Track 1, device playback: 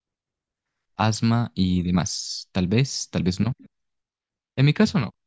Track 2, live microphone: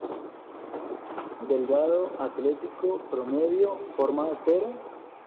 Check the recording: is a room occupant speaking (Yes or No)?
Yes